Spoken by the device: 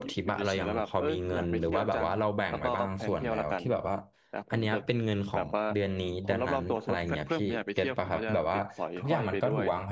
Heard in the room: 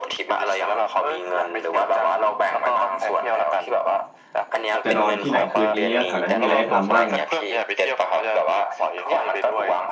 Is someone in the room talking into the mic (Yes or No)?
Yes